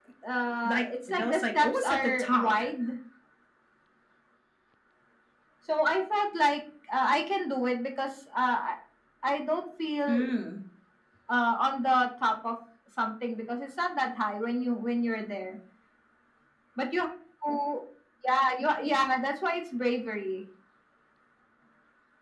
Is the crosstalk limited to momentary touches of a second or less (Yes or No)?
No